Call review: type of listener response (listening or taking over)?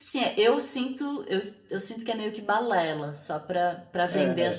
taking over